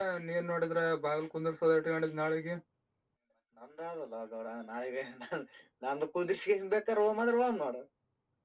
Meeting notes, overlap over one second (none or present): none